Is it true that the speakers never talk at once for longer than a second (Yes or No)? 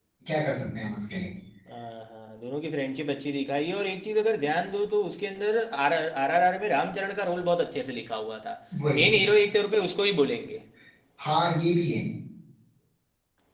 Yes